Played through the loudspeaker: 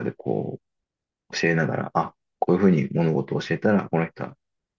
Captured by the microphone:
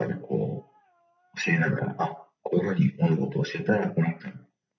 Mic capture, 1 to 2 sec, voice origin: echo only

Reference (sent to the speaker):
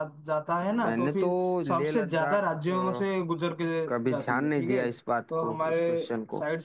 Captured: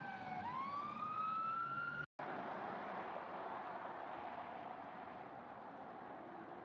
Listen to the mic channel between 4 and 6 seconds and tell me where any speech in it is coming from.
neither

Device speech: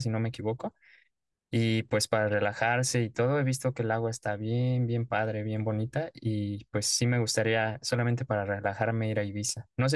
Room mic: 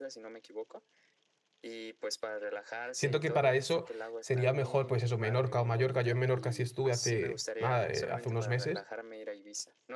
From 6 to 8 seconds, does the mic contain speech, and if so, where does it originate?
both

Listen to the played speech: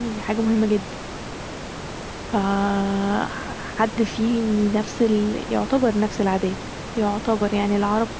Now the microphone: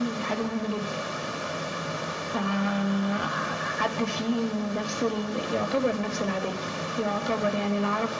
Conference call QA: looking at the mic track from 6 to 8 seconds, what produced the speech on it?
echo only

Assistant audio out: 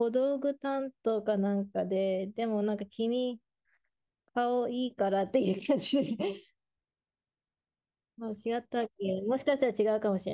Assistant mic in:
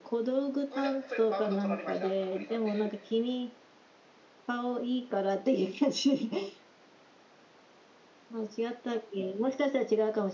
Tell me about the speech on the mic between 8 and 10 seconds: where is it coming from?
echo only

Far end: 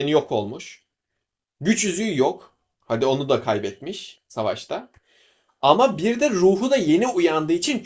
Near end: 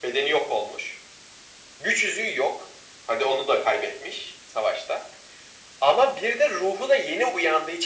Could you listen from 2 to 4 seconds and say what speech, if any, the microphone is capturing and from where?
echo only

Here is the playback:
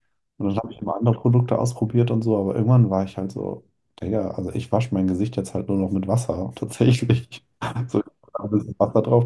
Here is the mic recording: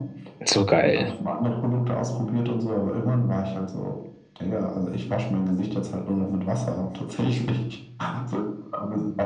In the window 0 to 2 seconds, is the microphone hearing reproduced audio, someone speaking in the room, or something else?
both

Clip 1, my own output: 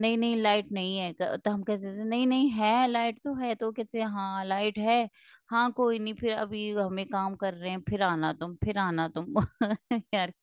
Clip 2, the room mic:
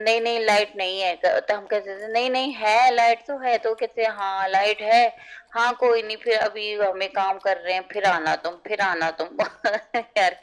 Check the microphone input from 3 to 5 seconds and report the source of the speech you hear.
echo only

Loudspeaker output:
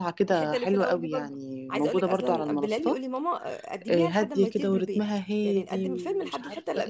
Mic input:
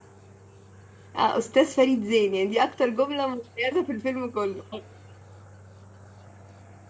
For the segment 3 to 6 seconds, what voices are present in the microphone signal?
user only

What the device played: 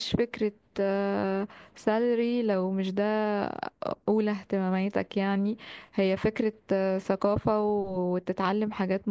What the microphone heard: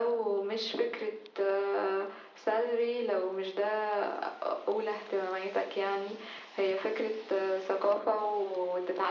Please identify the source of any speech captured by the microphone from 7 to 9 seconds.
echo only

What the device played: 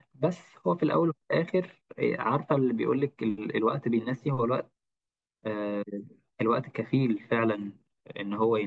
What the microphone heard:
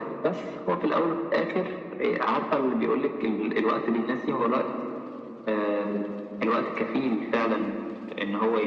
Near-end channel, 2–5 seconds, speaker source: echo only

